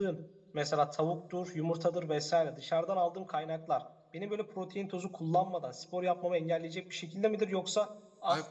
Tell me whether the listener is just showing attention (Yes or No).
No